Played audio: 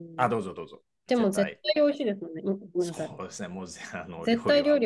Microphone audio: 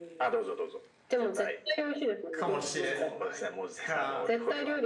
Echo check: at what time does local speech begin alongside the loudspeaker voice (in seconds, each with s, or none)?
2.3 s